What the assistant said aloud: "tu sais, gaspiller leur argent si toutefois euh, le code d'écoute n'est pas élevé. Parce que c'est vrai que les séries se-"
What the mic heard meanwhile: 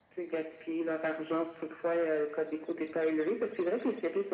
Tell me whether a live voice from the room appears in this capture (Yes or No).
No